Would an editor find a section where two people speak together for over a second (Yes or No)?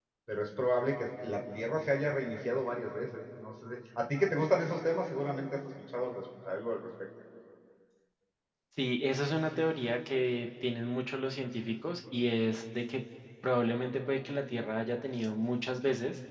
No